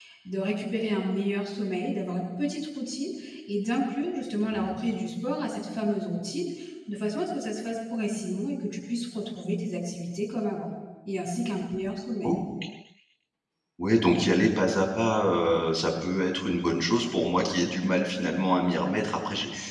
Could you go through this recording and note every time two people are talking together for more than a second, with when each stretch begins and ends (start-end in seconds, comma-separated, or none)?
none